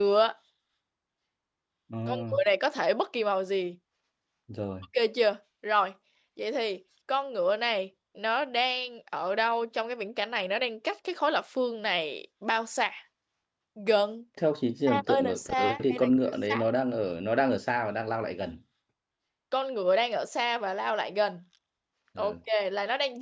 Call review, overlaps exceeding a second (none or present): present